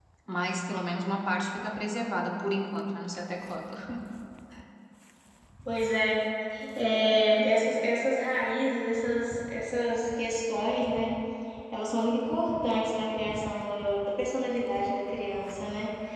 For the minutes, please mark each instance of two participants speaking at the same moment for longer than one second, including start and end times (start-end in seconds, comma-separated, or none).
none